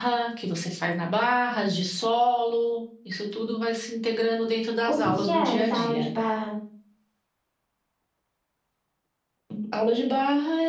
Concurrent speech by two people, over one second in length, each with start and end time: 4.9-6.1

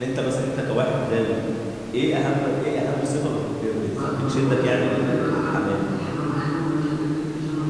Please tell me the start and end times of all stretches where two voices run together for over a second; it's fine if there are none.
3.9-5.9

